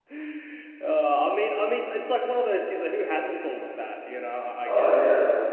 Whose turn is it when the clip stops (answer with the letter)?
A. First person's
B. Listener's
B